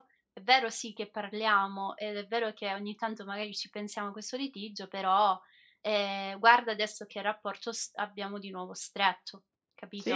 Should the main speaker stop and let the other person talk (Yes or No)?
Yes